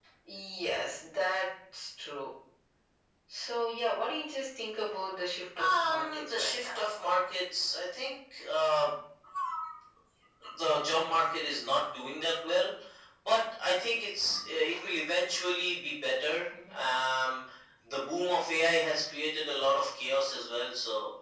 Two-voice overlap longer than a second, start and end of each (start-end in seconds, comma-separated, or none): 5.6-6.8